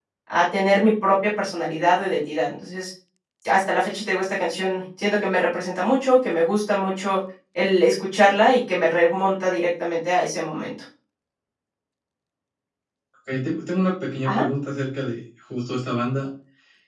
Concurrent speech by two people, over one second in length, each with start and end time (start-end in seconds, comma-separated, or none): none